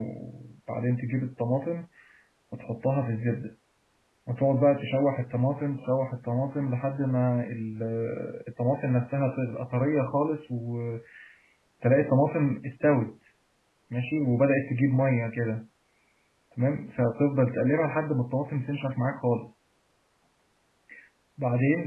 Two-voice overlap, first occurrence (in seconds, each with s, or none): none